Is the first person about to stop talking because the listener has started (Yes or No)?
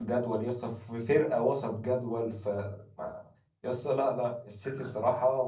No